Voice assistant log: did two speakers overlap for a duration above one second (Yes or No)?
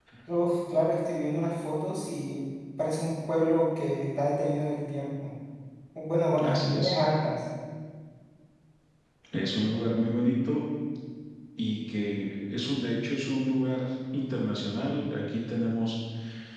No